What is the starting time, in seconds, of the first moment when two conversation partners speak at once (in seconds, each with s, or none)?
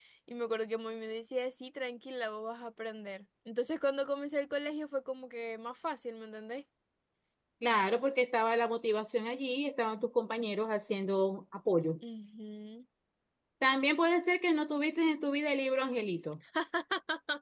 none